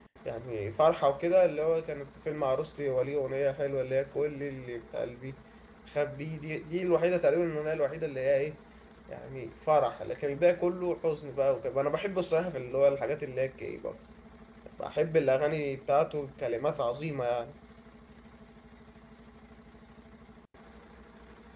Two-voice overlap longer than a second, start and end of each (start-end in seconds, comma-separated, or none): none